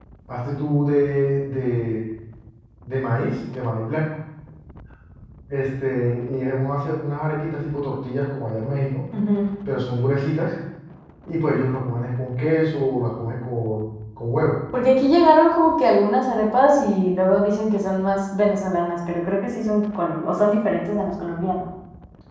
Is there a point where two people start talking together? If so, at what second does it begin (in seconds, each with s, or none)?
none